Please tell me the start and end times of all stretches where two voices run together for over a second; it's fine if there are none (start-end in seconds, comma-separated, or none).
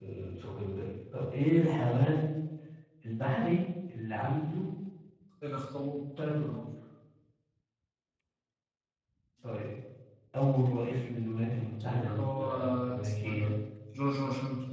11.9-13.5